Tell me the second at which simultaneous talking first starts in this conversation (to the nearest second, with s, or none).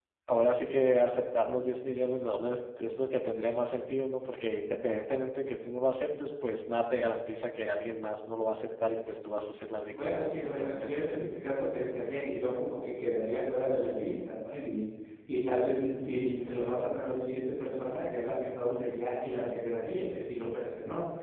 10 s